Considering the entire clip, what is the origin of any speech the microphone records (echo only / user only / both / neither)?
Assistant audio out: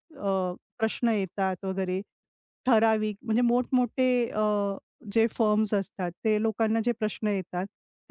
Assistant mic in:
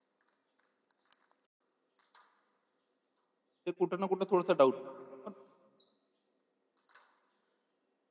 user only